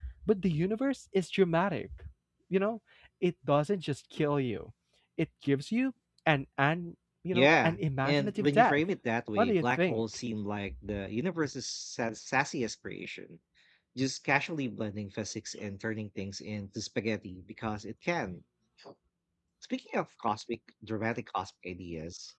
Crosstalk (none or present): present